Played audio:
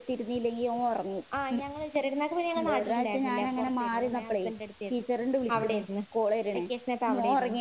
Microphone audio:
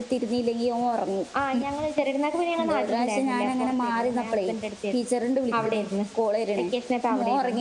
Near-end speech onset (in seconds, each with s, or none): none